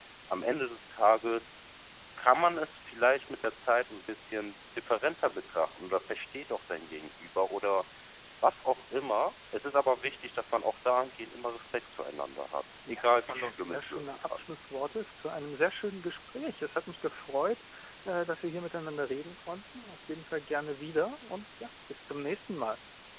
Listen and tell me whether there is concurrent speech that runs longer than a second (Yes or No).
Yes